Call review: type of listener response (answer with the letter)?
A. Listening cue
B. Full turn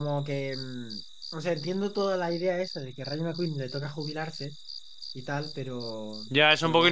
B